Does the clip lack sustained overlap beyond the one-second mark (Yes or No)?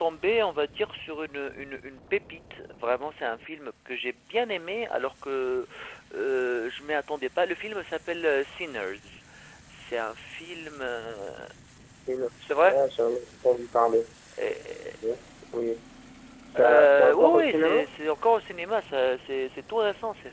No